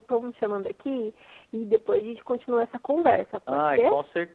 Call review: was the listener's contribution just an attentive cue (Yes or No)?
No